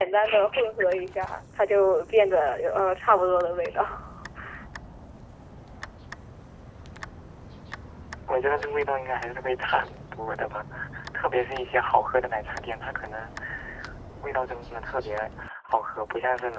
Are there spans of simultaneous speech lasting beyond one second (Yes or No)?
No